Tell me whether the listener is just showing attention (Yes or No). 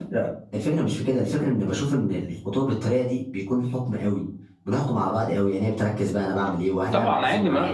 No